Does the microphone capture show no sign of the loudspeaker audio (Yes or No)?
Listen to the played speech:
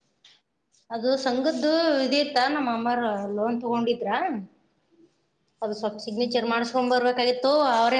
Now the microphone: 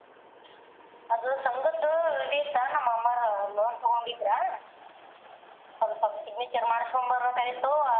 No